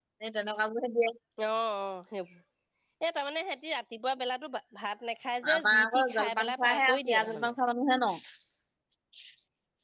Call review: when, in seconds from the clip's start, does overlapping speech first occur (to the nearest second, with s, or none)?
5 s